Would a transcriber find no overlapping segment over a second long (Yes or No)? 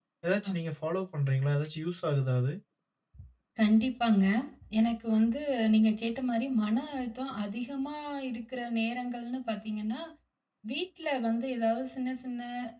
Yes